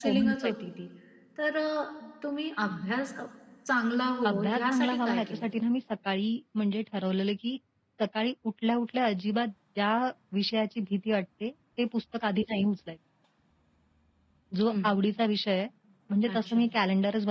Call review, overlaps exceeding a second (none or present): present